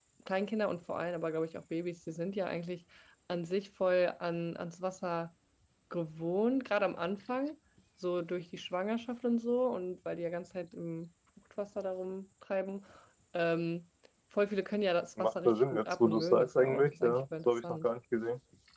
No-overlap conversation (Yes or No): No